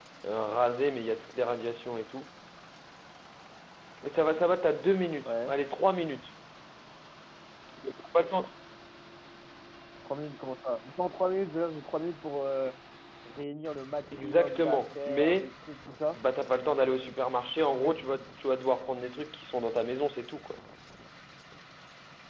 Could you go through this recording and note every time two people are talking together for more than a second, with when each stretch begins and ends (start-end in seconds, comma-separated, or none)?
14.1-15.5